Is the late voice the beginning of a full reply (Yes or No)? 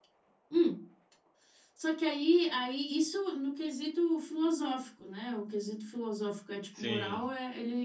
No